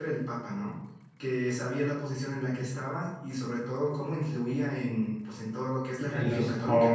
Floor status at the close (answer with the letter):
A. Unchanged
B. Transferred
B